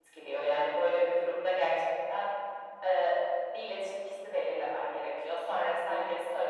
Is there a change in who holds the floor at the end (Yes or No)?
No